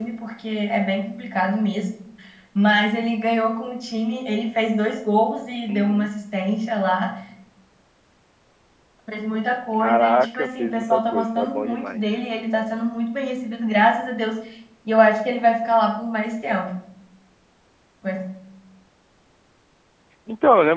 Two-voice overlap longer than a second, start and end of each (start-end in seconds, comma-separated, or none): 9.8-12.3